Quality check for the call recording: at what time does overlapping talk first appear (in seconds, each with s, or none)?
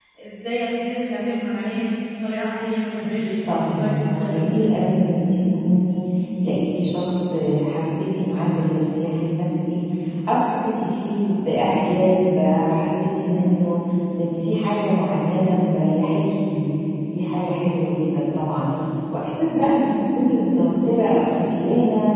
3.2 s